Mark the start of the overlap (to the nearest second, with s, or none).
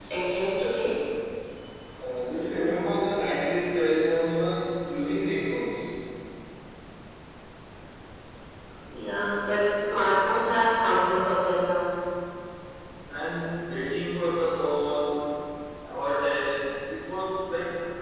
none